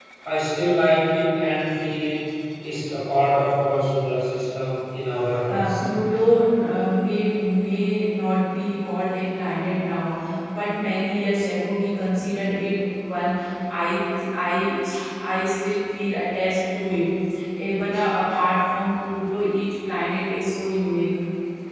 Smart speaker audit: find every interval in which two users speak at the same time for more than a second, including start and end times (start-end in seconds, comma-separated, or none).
none